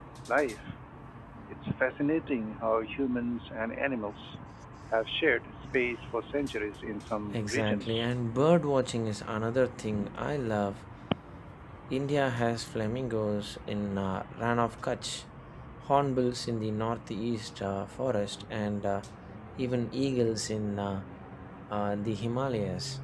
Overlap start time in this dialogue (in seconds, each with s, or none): 7.3 s